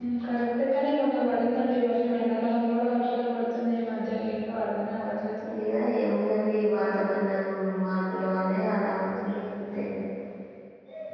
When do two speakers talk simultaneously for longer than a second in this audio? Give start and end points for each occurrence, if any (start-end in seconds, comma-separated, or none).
none